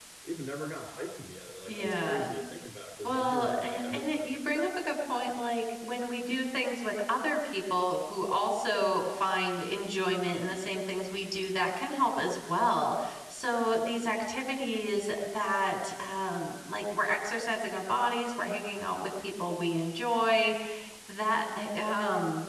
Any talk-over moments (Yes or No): Yes